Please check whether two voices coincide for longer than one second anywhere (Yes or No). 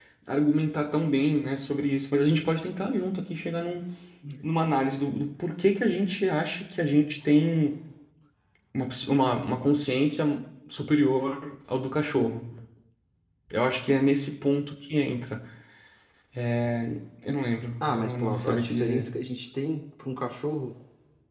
Yes